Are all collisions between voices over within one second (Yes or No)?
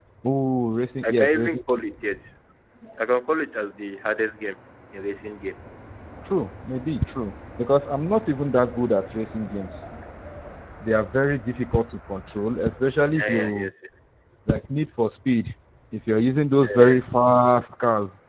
Yes